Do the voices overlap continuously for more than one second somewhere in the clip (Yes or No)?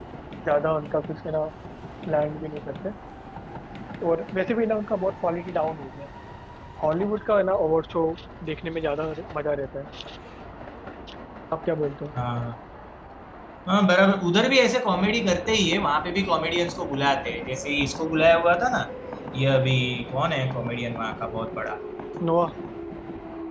No